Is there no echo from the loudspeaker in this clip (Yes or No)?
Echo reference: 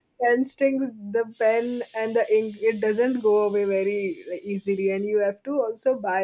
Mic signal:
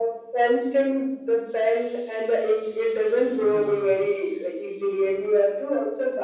No